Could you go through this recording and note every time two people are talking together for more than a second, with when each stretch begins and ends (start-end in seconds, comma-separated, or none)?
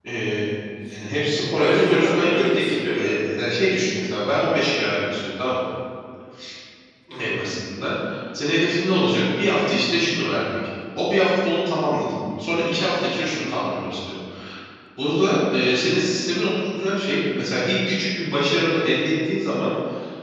1.6-3.0